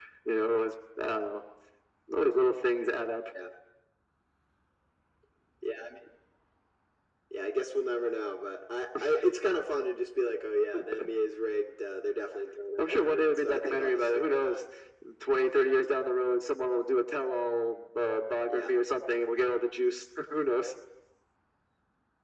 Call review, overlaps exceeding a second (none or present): present